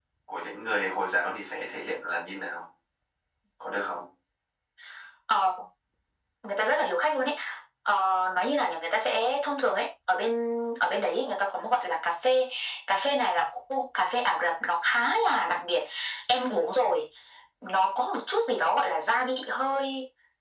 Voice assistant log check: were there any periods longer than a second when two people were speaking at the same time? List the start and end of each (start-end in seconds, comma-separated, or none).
none